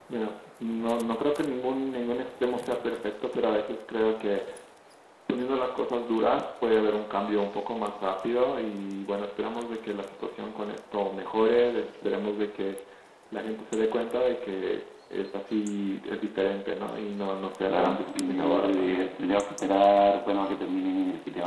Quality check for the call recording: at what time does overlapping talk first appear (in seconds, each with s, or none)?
17.7 s